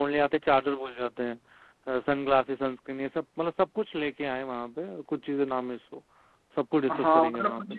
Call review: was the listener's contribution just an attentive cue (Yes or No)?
No